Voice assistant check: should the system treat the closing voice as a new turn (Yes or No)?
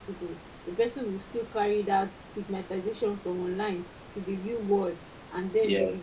No